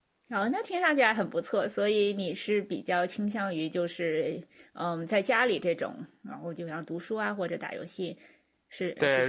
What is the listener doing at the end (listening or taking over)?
taking over